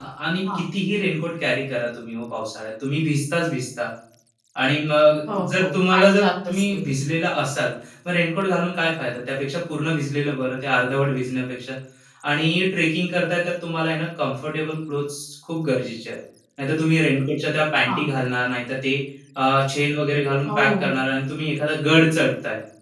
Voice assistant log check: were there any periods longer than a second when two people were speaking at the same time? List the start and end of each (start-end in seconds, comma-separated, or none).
5.3-6.8